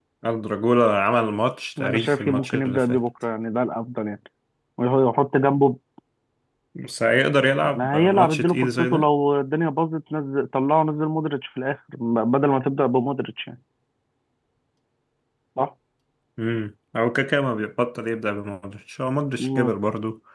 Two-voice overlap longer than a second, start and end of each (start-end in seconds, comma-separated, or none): 1.8-3.0, 7.8-9.1